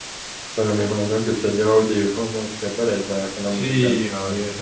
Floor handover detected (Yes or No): Yes